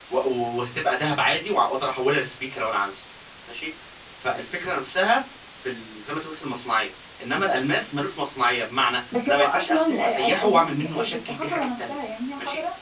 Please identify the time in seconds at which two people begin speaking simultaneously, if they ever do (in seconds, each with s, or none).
9.1 s